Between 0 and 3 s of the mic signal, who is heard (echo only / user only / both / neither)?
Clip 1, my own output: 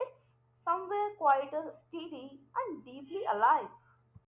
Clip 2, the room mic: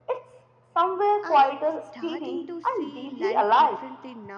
both